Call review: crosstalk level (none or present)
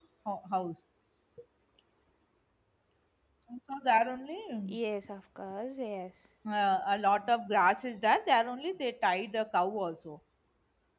none